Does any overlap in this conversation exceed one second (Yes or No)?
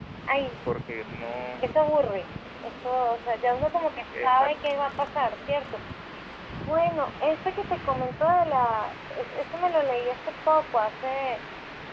No